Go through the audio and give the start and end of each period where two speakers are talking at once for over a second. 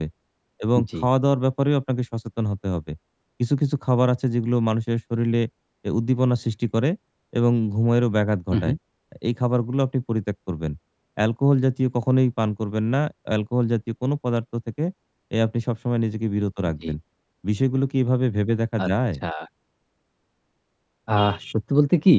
none

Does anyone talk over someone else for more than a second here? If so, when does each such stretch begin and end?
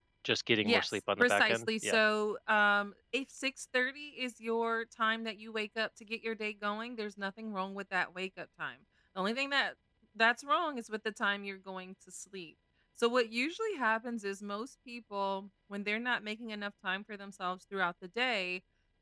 0.6-2.0

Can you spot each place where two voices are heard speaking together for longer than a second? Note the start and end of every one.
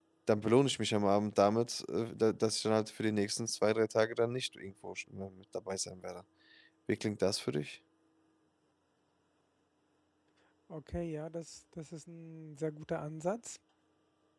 none

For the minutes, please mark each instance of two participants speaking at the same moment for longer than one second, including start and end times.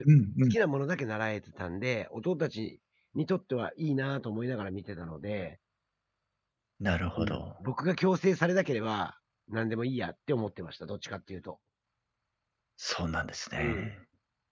none

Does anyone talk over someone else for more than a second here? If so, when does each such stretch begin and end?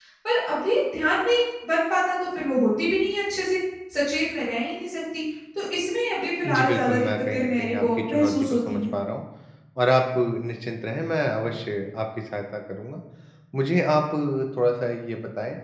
6.5-8.8

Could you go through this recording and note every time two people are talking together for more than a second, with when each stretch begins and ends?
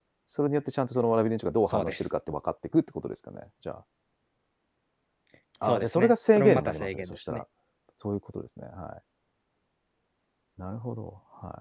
5.6-7.4

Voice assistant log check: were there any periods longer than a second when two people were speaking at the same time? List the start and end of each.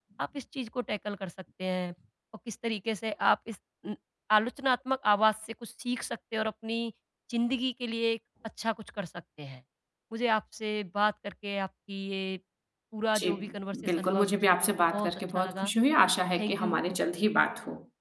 14.0-15.7

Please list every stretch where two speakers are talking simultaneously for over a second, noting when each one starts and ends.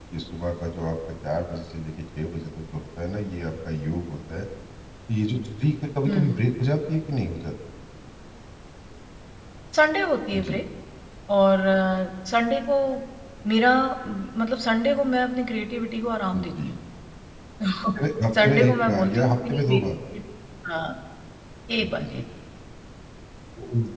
18.4-19.8

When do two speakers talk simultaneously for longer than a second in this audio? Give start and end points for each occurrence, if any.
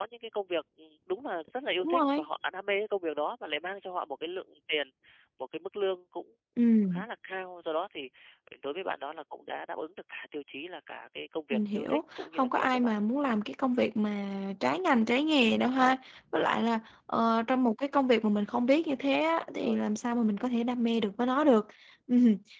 11.5-12.9

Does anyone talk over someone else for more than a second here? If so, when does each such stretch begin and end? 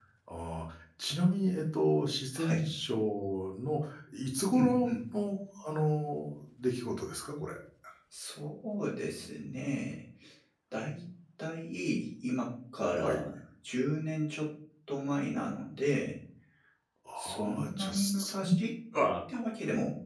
17.2-18.5

